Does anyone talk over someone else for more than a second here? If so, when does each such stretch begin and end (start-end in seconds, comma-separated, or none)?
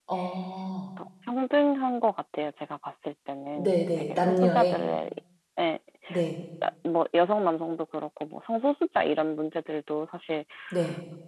3.6-4.8